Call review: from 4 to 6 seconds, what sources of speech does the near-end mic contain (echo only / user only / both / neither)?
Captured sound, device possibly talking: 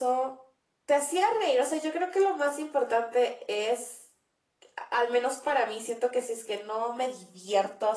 echo only